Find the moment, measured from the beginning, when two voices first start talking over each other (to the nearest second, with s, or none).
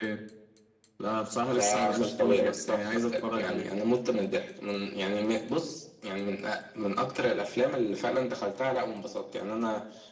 2 s